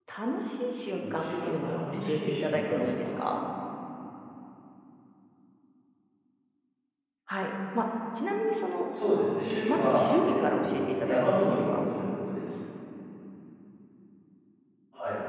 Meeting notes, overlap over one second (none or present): present